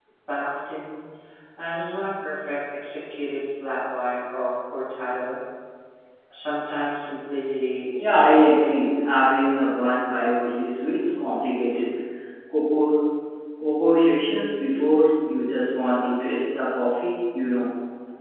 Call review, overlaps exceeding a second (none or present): none